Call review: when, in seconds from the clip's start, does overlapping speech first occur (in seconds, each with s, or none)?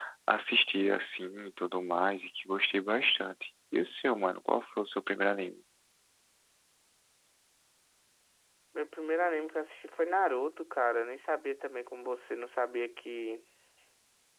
none